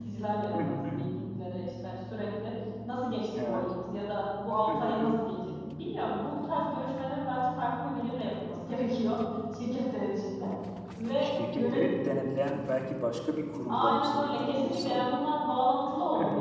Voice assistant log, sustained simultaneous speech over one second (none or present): present